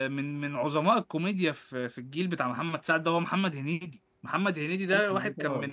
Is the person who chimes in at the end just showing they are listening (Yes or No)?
Yes